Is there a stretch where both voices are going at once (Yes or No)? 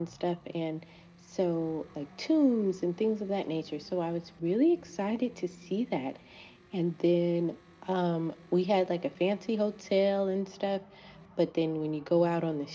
No